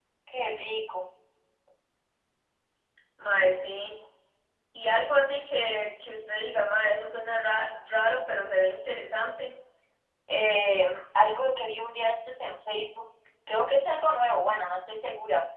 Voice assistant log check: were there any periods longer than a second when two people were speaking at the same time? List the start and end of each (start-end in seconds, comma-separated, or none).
none